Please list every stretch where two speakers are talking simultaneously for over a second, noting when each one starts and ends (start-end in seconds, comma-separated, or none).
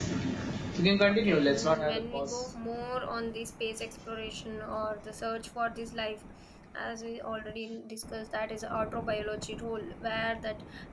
1.1-2.3